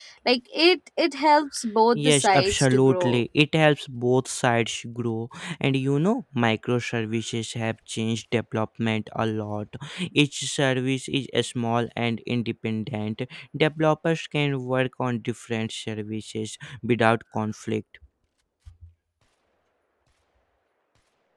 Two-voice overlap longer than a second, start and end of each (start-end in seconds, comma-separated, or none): 1.9-3.2